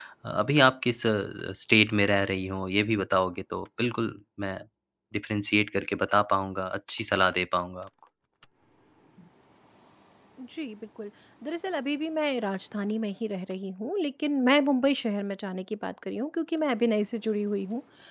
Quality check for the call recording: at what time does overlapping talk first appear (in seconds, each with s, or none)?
none